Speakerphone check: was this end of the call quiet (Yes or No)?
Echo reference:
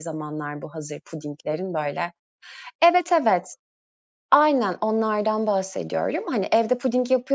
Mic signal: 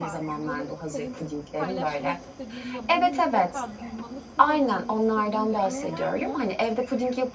No